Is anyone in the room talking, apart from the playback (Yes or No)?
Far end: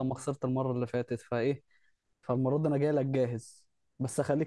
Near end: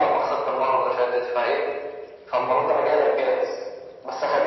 No